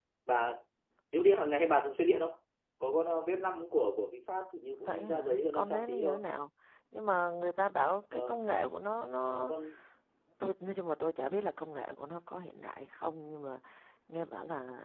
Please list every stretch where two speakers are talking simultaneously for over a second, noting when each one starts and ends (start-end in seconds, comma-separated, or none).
4.8-6.2